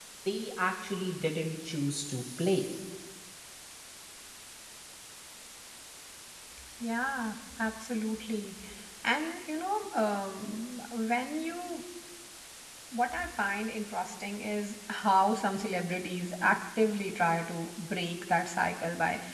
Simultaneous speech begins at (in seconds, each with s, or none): none